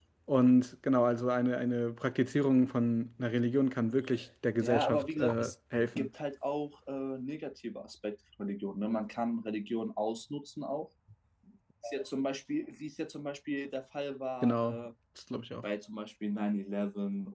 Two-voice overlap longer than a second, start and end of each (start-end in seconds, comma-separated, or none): 4.6-6.1